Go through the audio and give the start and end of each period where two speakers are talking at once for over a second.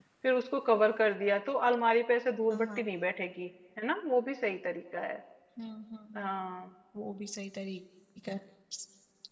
none

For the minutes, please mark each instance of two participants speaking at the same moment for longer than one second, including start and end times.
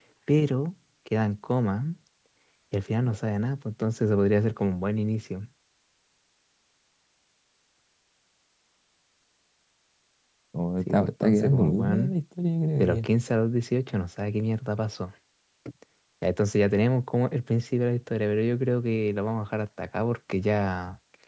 10.9-12.2

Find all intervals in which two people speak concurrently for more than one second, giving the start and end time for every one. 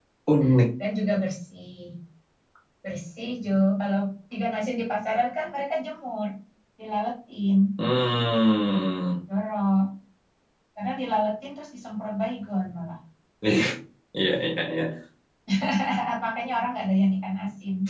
none

